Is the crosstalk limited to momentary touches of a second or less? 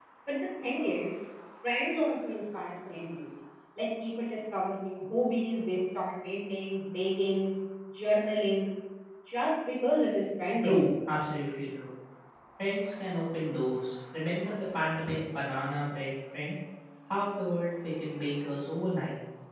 Yes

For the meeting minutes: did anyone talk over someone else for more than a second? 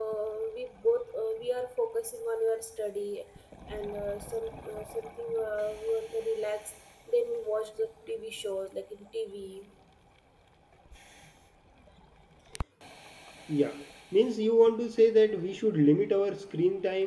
No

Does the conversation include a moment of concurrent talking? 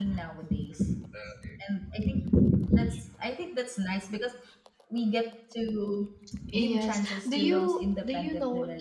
Yes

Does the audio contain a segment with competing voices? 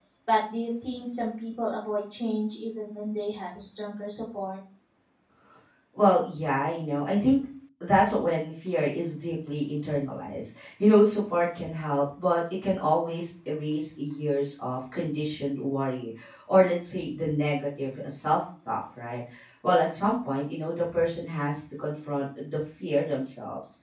No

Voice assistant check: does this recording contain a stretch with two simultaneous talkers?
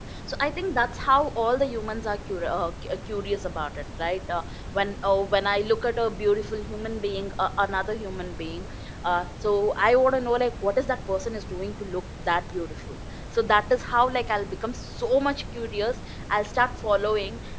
No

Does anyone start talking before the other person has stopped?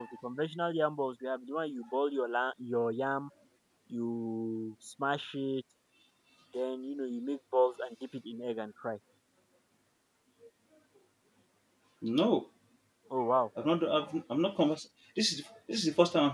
No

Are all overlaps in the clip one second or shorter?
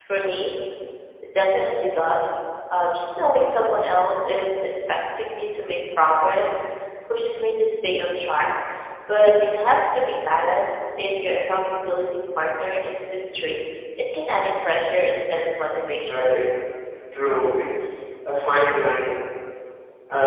Yes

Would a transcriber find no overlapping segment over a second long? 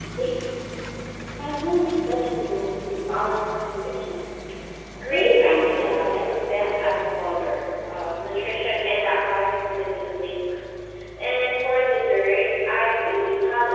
No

